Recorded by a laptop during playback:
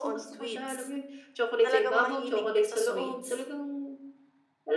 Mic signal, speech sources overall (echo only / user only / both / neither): both